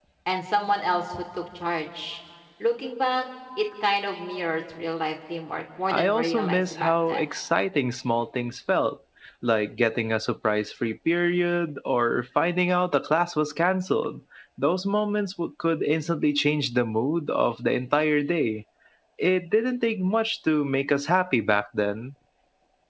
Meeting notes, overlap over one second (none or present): present